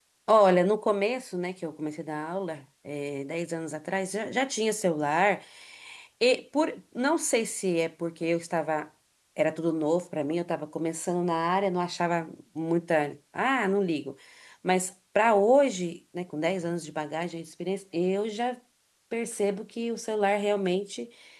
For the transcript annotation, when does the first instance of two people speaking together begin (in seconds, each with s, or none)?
none